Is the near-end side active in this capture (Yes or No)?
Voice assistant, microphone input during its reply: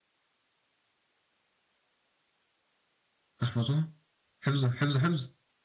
Yes